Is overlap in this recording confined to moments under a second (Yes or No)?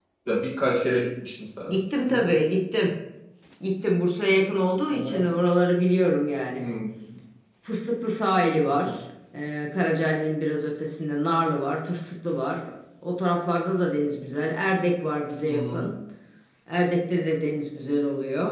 Yes